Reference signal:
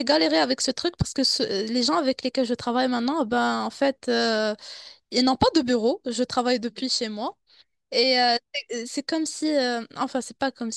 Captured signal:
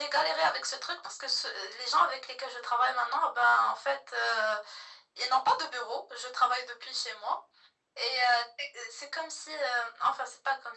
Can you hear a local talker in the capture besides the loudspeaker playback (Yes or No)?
No